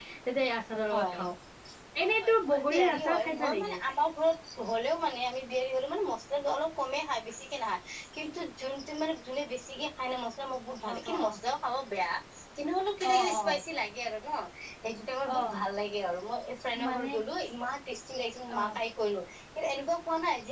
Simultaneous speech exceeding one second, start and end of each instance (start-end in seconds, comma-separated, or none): 2.0-3.7